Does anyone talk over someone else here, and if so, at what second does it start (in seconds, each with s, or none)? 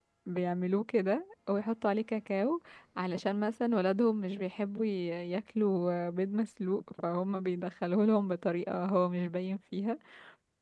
none